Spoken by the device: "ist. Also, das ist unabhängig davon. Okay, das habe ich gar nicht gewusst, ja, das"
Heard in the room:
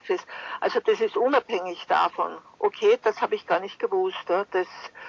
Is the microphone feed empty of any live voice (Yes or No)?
Yes